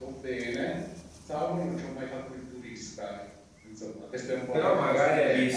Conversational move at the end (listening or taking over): taking over